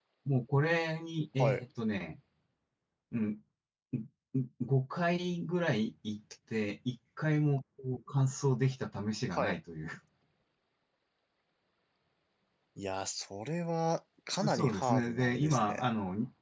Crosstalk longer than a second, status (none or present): present